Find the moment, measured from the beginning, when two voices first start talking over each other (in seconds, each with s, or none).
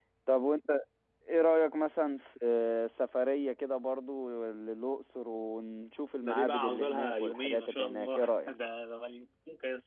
6.2 s